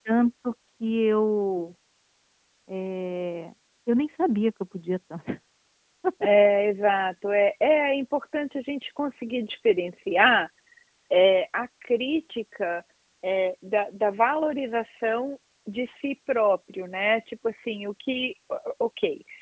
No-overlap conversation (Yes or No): Yes